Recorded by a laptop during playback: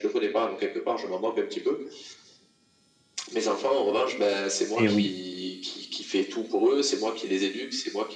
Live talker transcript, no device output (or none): et oui.